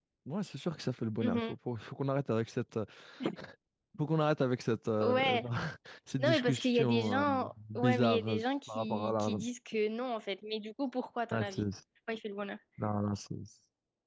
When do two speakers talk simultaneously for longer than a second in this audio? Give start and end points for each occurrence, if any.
6.2-9.4

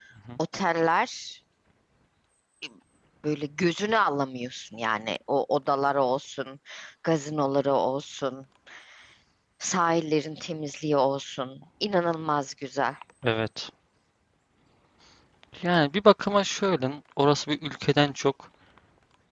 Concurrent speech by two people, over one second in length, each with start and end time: none

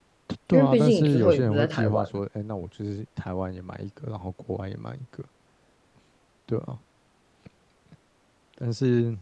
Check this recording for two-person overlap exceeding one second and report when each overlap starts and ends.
0.5-2.1

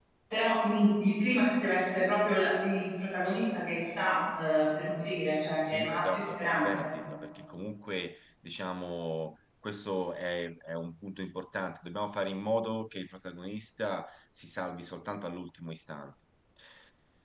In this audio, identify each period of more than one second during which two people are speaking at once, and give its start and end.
5.6-6.9

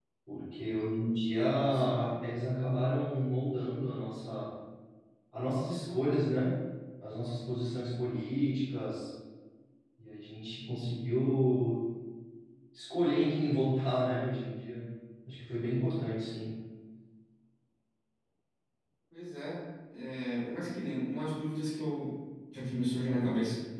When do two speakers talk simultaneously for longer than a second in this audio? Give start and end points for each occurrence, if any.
none

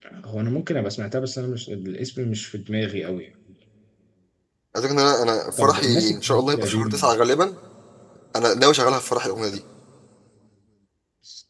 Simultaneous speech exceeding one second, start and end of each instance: 5.6-7.1

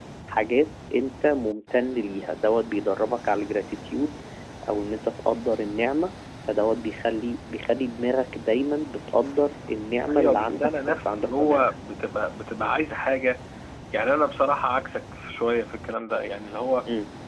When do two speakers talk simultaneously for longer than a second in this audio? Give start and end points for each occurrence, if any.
10.1-11.7

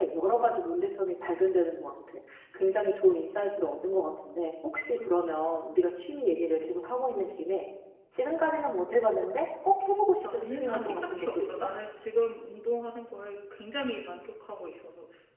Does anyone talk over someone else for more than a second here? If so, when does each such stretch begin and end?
10.3-11.7

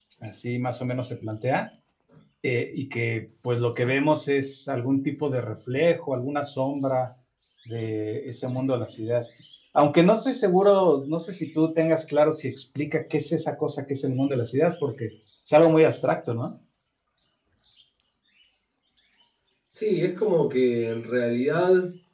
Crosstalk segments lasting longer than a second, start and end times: none

